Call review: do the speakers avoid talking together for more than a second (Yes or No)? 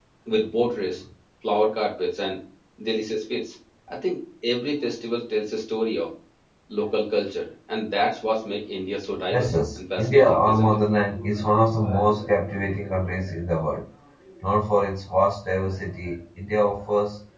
No